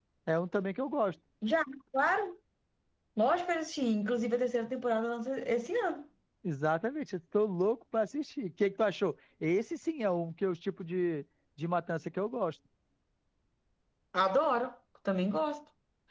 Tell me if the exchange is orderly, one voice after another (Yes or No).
Yes